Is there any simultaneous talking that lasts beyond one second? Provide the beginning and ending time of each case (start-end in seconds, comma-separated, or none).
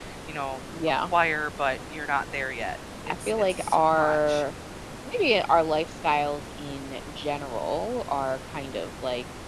3.1-4.4